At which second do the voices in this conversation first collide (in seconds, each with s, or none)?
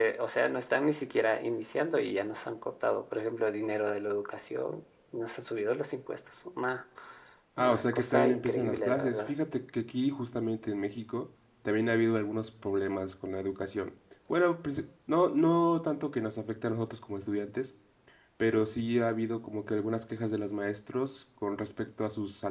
7.6 s